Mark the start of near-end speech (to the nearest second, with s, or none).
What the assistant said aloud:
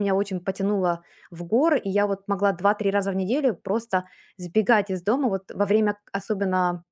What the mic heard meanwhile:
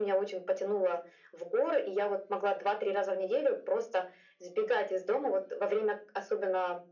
none